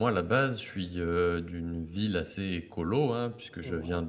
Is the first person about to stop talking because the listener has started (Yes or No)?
No